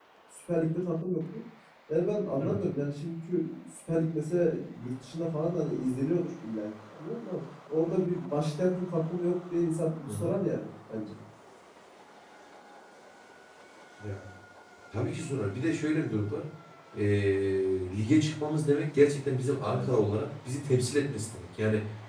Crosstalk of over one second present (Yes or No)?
No